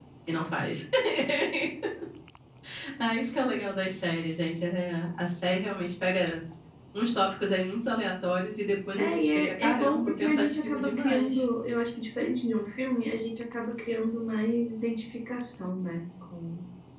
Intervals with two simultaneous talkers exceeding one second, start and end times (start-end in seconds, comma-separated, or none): 9.0-11.3